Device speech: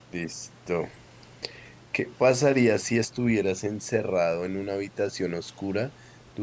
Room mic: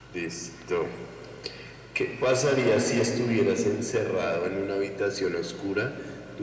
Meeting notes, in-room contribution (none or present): none